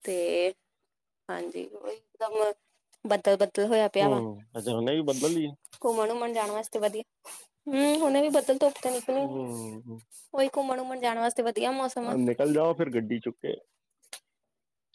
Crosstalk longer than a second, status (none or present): none